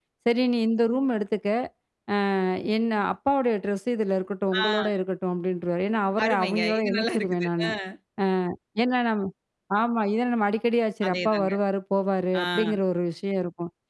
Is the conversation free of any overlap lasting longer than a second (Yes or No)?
No